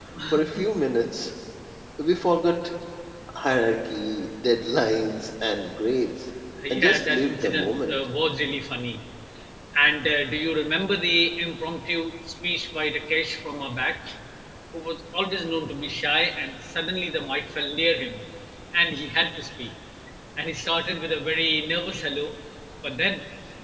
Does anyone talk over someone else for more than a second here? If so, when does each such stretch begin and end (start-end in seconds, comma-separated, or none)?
6.7-8.0